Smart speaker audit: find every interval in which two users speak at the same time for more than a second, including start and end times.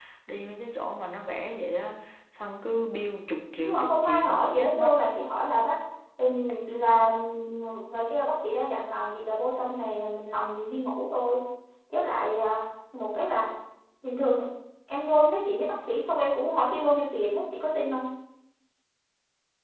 3.6-4.9

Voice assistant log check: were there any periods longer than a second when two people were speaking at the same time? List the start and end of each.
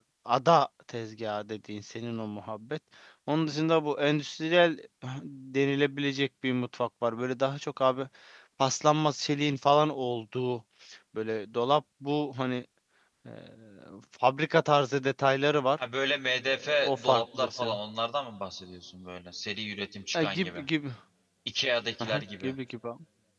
16.5-17.8

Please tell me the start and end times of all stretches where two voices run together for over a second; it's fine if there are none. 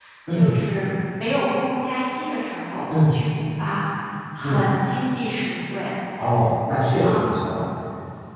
none

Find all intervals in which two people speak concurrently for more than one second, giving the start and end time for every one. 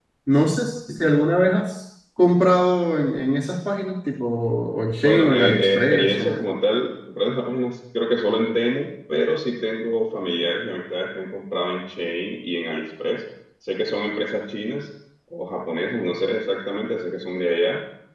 5.0-6.4

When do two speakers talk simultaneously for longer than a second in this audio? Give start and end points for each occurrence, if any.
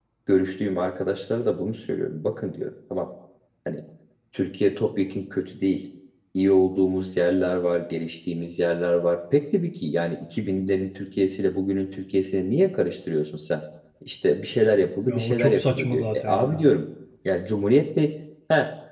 15.0-16.7

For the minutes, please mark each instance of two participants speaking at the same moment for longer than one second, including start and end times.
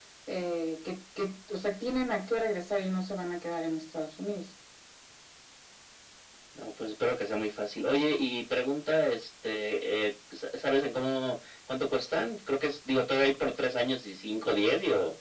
none

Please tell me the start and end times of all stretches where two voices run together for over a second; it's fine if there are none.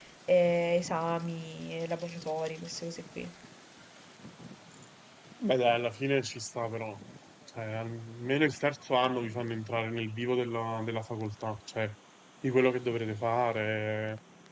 none

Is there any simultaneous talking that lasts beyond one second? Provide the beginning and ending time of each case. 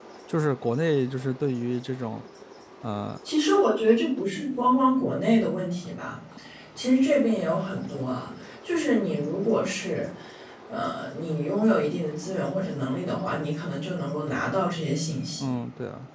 none

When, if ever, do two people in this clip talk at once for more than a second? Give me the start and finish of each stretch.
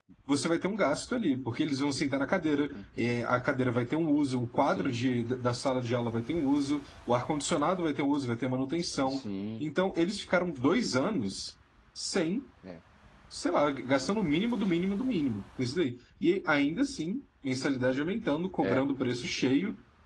none

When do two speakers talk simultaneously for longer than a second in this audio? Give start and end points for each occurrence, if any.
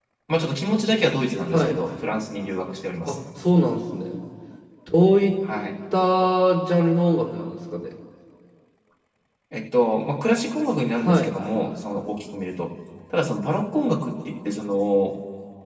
none

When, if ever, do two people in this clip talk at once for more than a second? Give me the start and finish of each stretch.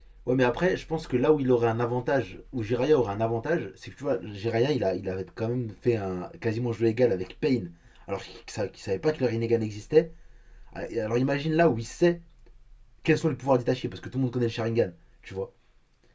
none

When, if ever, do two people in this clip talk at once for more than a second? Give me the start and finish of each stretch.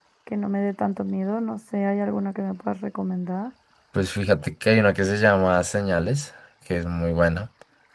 none

